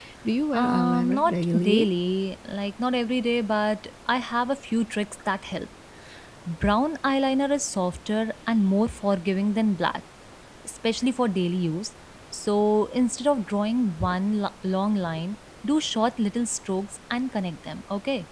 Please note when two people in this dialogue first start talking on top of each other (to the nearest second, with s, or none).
1 s